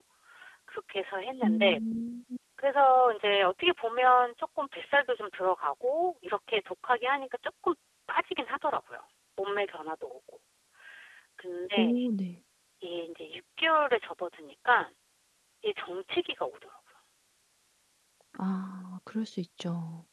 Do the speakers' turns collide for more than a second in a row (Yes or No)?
No